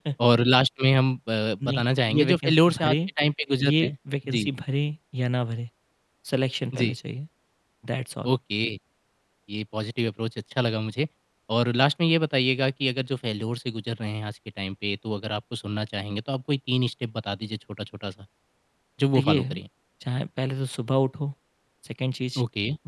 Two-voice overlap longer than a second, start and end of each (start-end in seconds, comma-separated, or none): 1.7-3.0